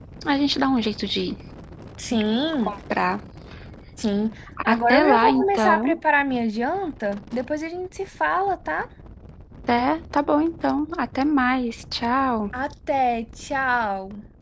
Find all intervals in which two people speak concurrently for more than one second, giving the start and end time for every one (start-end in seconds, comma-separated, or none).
4.7-6.0